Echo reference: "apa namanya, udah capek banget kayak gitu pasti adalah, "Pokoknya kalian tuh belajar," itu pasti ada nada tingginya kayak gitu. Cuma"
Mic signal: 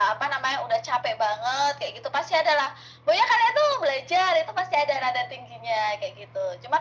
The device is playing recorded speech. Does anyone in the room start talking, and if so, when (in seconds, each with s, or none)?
none